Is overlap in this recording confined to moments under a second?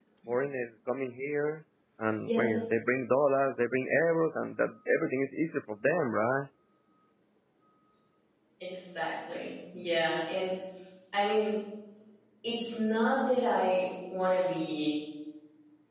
Yes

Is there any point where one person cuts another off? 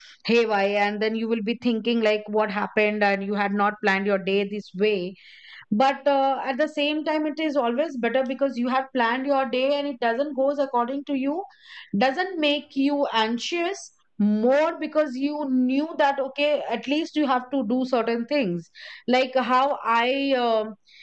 No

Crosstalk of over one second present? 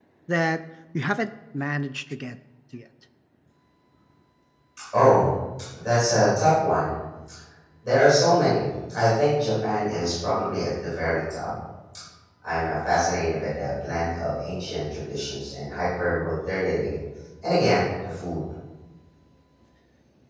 No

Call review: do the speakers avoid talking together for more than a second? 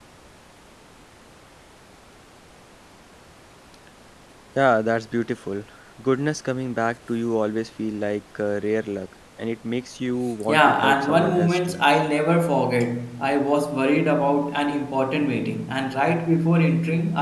No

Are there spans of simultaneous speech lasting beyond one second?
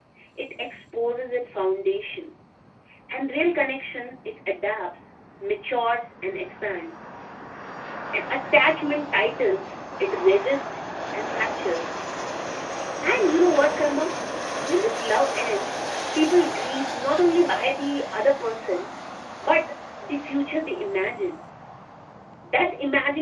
No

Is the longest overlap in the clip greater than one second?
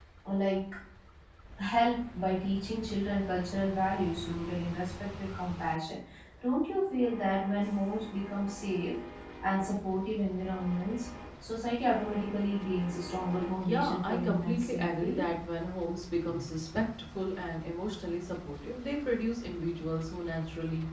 Yes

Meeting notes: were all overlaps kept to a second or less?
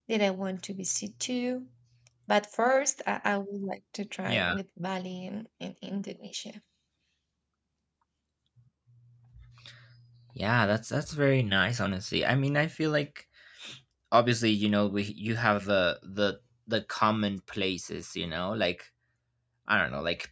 Yes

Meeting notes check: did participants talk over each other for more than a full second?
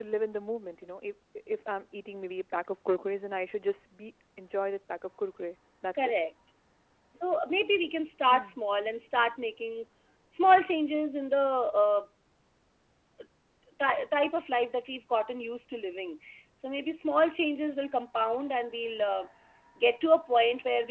No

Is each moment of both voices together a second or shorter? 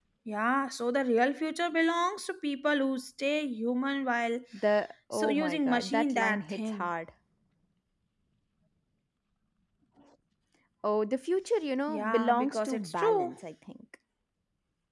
No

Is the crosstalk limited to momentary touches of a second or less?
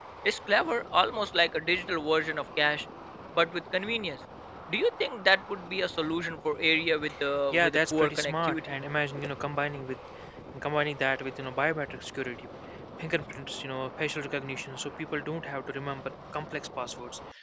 No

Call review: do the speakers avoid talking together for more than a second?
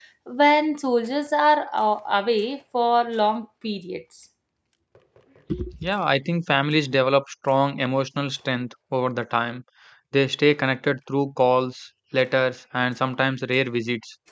Yes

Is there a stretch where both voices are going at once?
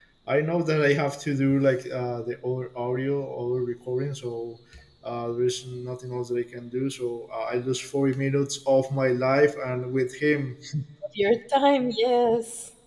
No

